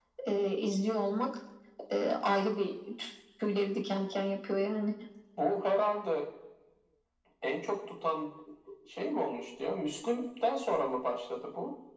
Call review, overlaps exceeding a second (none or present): none